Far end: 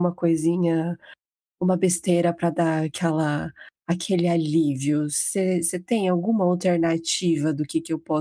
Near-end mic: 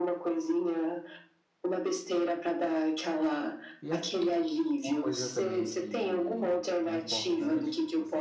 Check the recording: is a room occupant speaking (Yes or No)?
Yes